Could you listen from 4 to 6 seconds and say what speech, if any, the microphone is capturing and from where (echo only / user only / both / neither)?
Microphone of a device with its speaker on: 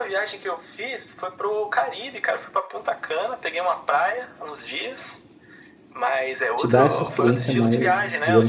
echo only